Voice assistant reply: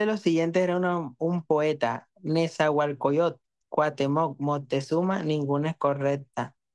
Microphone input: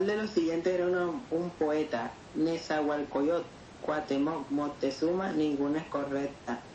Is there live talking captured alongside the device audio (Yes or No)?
No